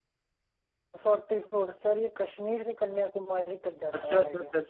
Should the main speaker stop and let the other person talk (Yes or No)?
Yes